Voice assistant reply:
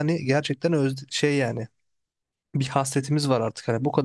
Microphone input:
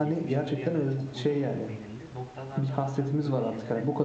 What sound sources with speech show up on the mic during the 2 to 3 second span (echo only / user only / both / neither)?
both